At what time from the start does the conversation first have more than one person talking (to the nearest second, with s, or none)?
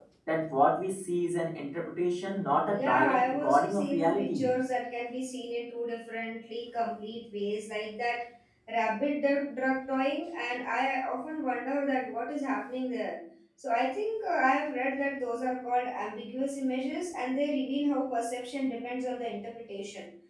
3 s